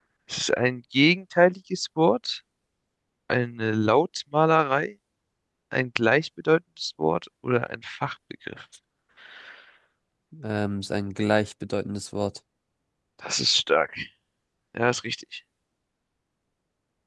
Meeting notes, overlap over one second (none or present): none